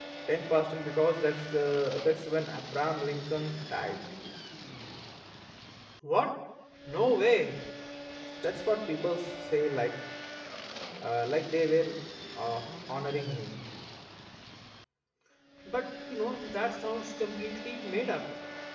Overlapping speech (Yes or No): No